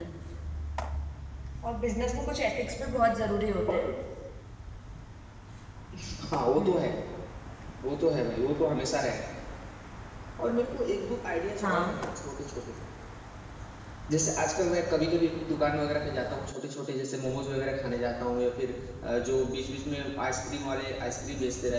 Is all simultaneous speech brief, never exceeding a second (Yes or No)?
Yes